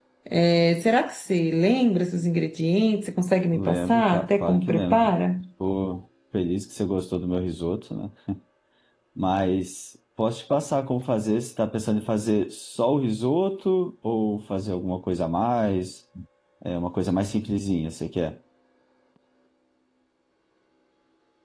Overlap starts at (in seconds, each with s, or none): 3.5 s